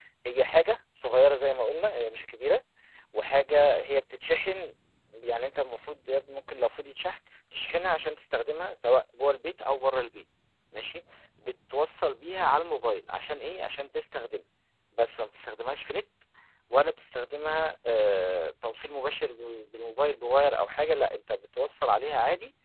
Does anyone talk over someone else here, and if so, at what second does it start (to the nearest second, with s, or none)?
none